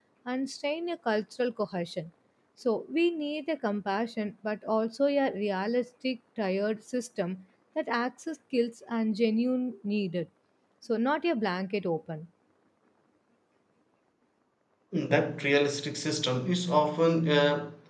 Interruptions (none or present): none